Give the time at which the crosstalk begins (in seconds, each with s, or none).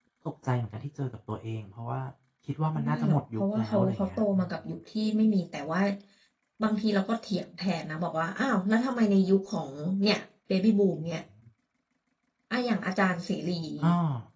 2.9 s